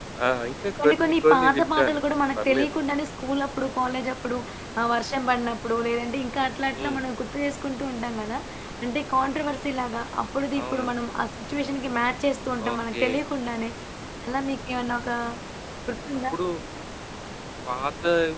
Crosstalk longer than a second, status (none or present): present